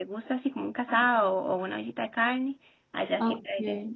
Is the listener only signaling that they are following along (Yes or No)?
No